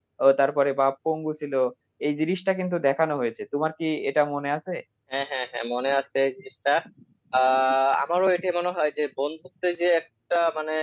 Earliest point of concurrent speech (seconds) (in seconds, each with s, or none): none